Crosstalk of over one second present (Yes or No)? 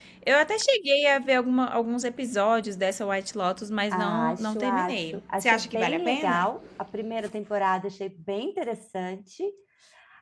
Yes